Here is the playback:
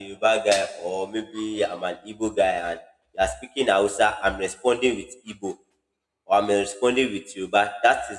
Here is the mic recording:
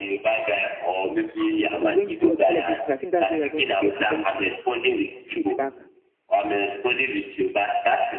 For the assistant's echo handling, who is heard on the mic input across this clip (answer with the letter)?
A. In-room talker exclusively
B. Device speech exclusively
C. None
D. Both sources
D